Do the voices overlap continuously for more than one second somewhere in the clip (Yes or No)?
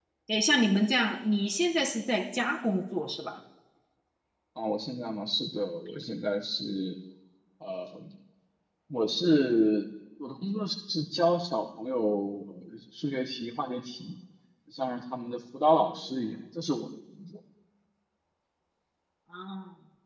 No